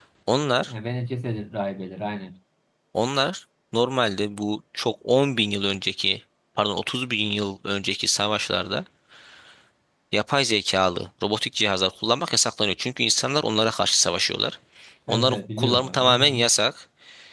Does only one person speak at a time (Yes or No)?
No